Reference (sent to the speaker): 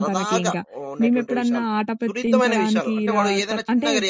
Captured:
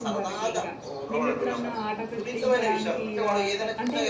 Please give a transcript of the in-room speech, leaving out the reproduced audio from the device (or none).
అవునండి. అవును.